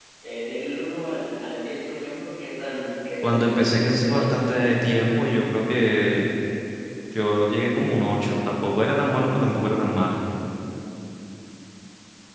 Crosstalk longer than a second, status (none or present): present